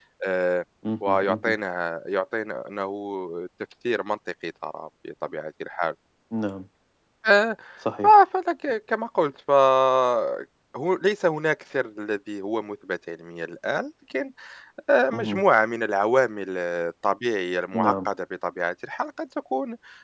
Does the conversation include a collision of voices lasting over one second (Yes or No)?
No